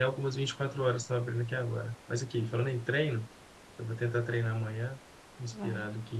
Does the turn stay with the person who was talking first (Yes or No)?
Yes